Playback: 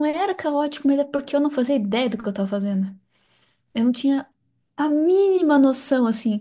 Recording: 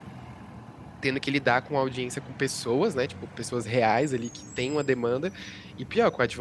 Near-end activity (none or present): present